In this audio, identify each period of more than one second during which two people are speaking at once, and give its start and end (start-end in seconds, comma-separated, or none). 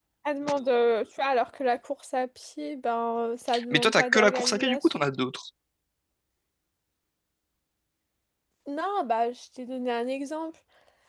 3.7-5.1